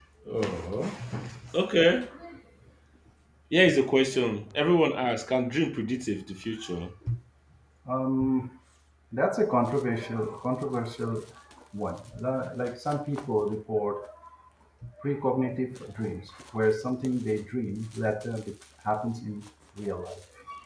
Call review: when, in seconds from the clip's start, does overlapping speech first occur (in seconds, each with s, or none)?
none